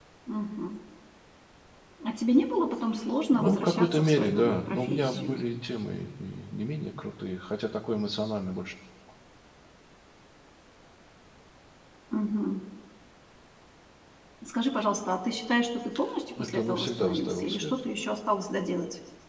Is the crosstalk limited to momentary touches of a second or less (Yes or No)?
No